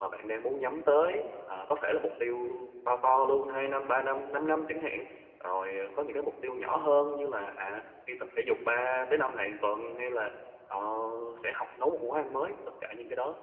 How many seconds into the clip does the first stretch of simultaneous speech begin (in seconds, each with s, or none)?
none